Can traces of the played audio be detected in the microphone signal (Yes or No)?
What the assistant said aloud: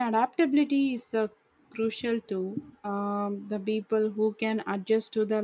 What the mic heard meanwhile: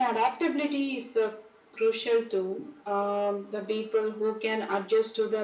Yes